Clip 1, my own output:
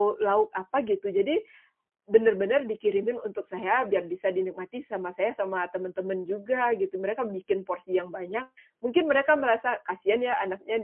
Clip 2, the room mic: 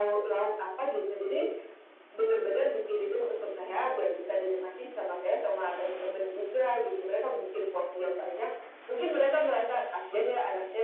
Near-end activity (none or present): none